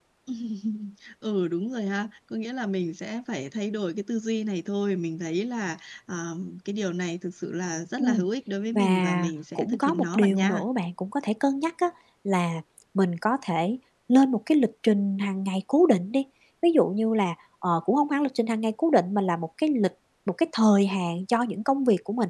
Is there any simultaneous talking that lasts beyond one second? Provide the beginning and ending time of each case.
8.7-10.7

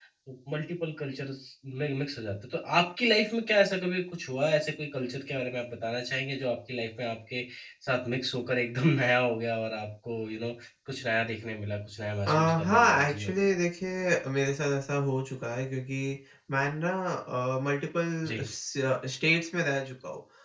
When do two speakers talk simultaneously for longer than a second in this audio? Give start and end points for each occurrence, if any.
12.3-13.5

